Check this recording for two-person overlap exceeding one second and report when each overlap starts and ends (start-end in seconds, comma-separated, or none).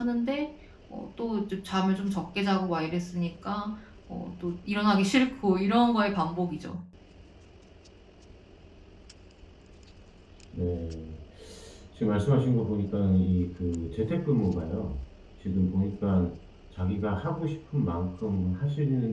none